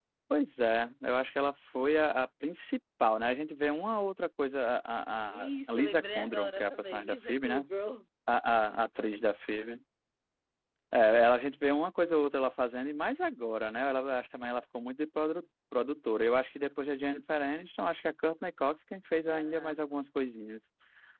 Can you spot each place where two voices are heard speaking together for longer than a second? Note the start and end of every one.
5.3-7.6

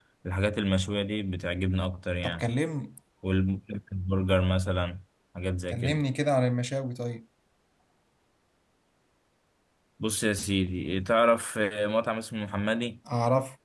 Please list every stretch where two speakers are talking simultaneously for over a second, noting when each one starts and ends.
none

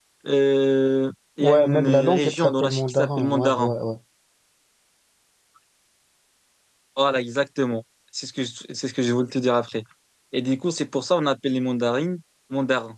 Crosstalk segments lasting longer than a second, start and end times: 1.4-3.7

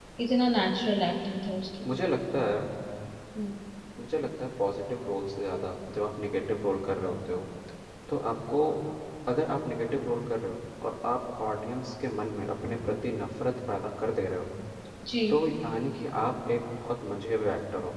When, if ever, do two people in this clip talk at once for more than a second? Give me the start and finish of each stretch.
none

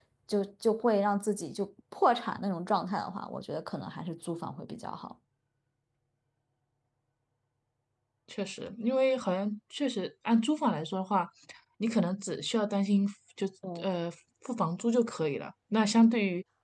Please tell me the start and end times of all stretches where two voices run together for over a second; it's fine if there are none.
none

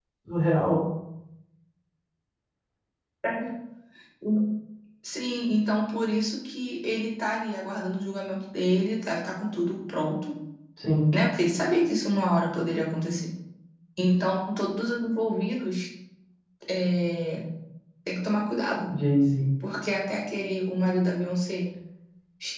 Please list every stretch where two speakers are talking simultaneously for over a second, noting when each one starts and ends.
none

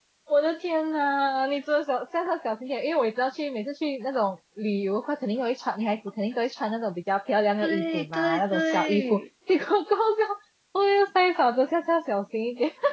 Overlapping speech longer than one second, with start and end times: 7.6-9.2

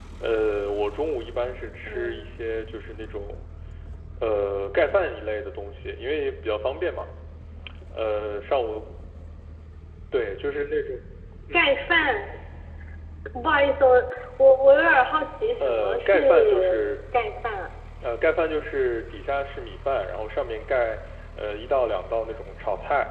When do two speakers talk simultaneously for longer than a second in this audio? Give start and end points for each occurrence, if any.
15.6-16.8

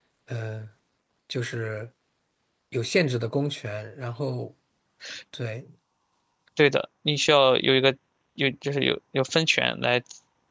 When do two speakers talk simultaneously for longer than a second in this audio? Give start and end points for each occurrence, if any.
none

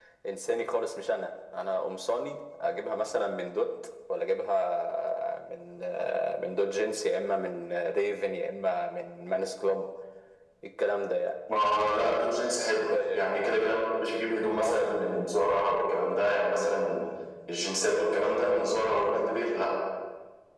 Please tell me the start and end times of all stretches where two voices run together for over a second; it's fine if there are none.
none

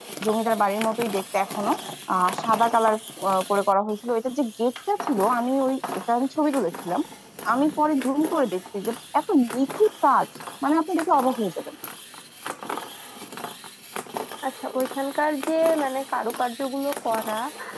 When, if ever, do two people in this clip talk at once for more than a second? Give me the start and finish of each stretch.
none

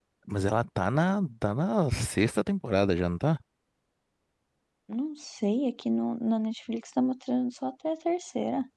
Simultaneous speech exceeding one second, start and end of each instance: none

